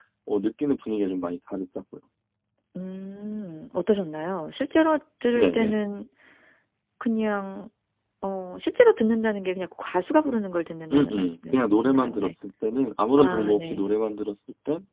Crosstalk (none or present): present